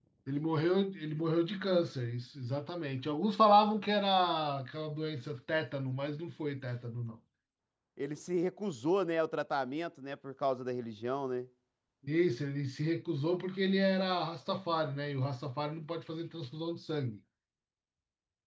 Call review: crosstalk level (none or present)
none